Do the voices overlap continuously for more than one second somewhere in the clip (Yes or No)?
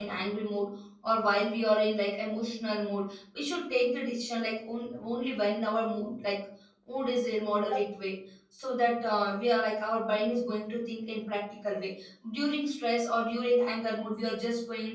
No